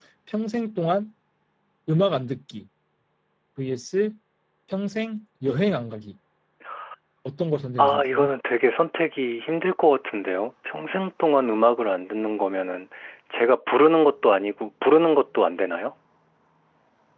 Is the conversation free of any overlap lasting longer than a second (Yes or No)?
Yes